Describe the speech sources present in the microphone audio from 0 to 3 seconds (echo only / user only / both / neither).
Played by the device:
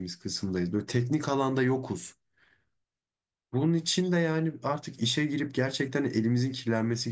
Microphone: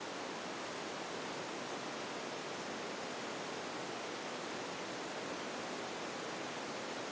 neither